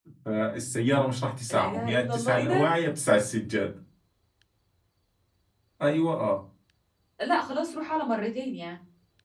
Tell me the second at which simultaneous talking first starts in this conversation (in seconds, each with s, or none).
1.5 s